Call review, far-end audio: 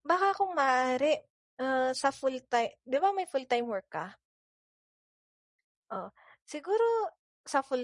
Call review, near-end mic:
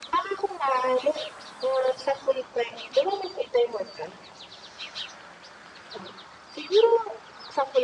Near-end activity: none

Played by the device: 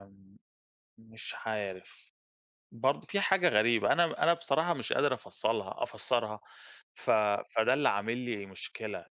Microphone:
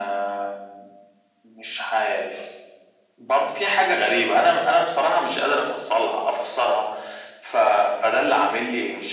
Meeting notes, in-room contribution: none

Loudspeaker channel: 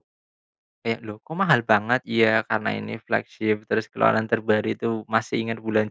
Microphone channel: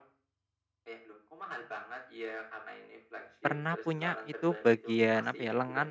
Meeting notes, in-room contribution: present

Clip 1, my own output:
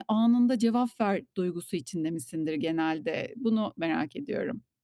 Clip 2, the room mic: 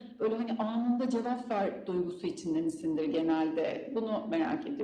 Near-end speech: none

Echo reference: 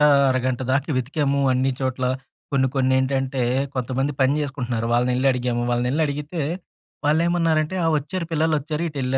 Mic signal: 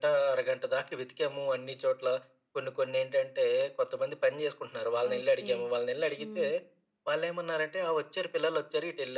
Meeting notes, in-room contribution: present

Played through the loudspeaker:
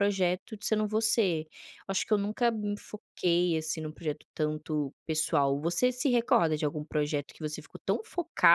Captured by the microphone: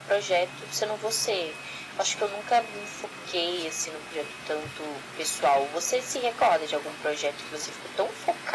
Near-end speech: none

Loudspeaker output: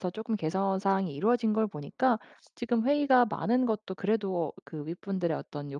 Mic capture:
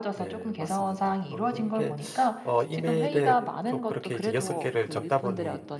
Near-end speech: present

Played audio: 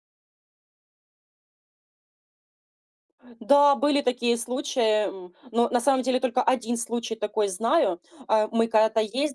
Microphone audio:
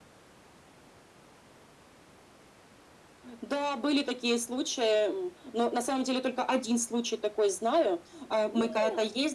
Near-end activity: present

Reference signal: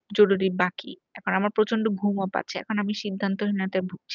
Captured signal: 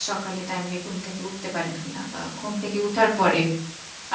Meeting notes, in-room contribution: present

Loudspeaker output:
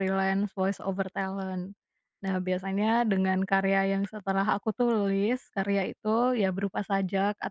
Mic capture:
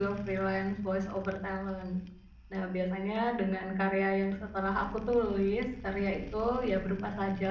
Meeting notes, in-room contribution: none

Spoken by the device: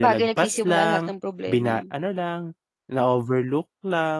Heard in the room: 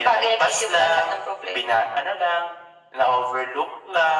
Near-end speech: none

